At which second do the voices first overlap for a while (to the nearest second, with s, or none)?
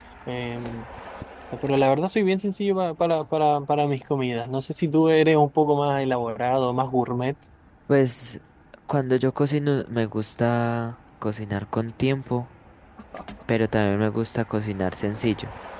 none